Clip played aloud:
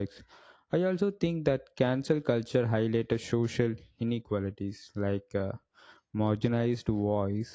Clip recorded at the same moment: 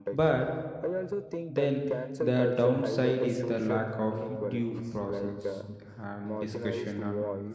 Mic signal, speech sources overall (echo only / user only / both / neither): both